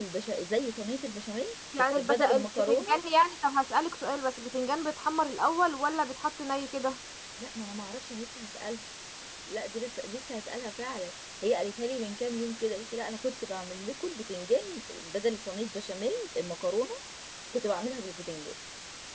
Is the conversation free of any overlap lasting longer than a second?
No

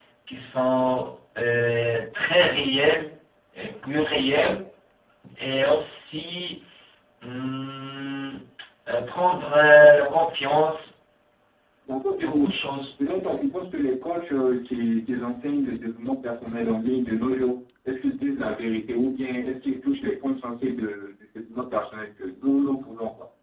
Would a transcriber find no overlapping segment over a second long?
Yes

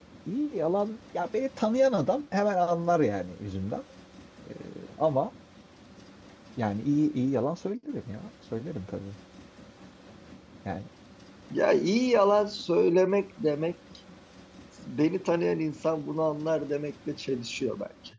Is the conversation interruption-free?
Yes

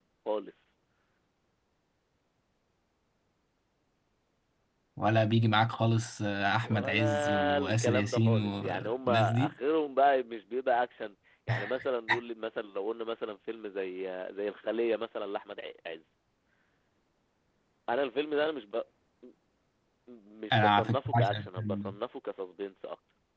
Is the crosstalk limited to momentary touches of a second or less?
No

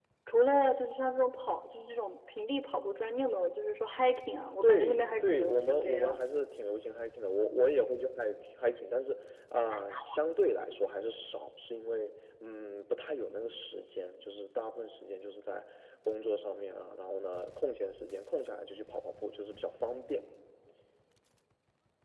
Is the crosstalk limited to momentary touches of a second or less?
No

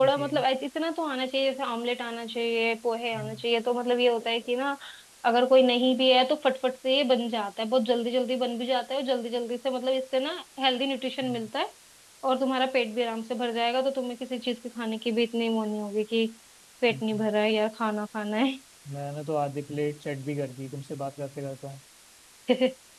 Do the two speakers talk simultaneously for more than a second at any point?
No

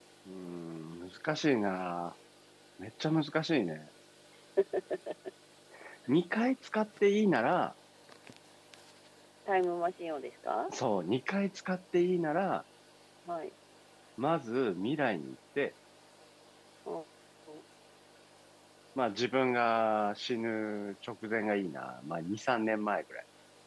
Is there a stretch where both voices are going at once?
No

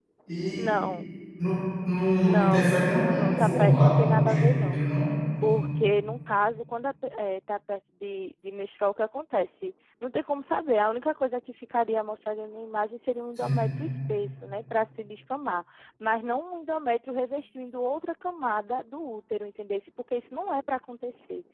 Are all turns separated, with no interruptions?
No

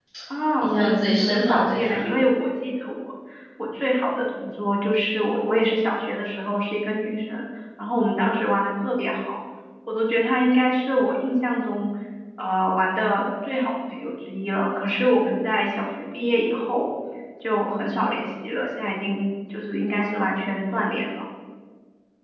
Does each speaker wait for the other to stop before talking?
No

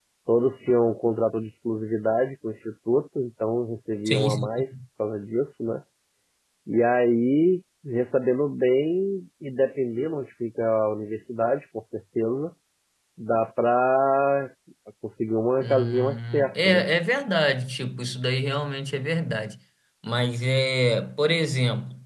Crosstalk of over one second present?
Yes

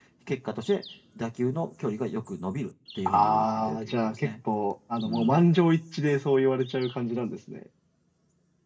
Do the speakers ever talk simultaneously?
Yes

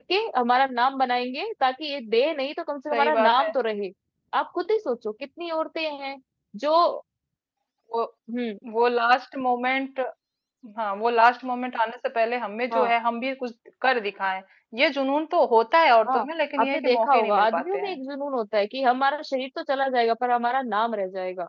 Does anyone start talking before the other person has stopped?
Yes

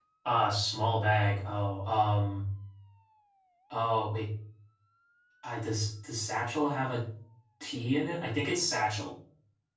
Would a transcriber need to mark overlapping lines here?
No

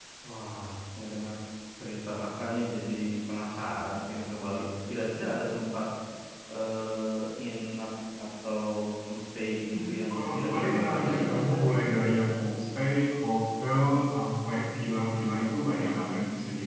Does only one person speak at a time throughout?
No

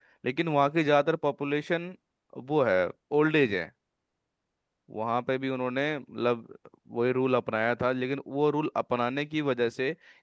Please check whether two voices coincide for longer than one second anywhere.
No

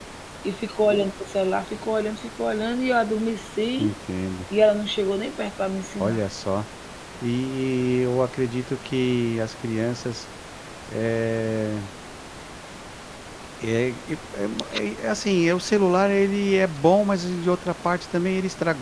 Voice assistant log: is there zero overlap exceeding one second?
Yes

